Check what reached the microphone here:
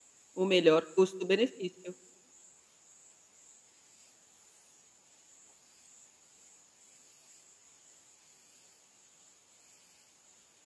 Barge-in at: 0.3 s

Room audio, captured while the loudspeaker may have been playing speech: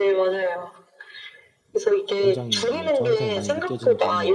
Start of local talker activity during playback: 2.2 s

